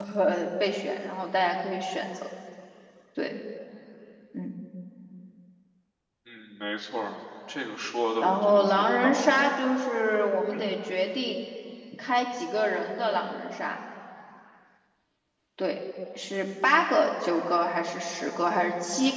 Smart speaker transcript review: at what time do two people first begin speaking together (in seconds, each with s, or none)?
8.2 s